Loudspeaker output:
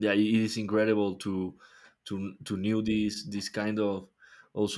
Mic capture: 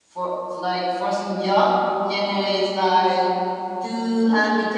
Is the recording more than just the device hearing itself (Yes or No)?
Yes